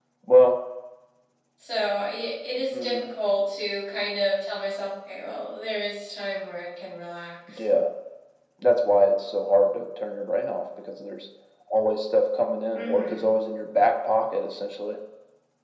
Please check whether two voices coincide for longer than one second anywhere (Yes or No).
No